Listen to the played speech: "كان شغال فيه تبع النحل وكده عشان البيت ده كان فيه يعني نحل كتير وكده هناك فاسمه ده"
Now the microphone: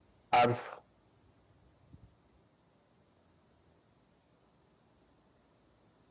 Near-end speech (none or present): present